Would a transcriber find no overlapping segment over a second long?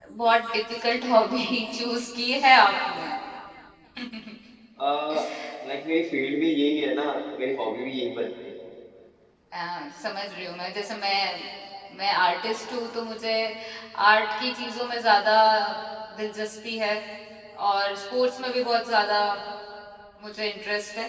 Yes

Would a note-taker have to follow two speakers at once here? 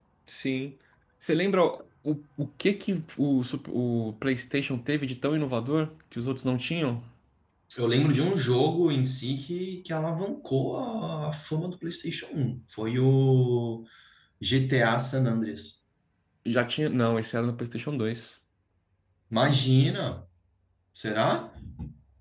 No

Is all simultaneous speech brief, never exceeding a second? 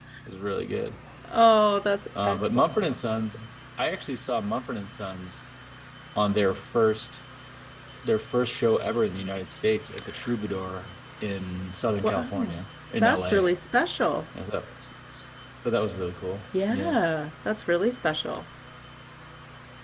Yes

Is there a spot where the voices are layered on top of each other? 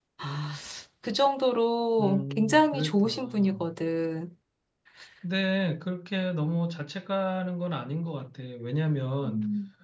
Yes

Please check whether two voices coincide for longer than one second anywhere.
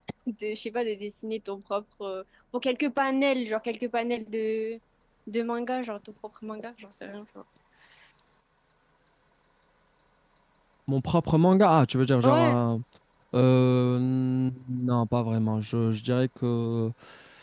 No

